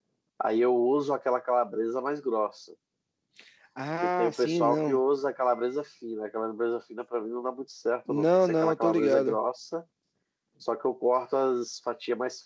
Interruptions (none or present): present